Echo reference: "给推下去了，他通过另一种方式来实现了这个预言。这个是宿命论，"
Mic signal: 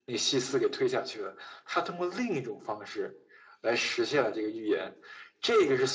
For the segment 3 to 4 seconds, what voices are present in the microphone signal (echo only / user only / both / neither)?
echo only